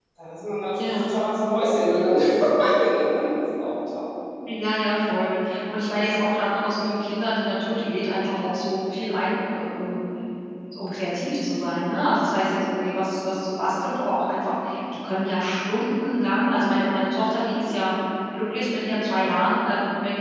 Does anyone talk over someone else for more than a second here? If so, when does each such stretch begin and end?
none

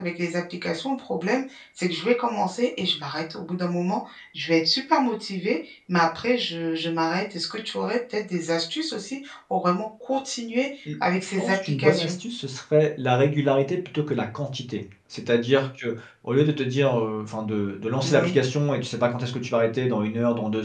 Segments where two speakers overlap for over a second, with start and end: 10.8-12.1

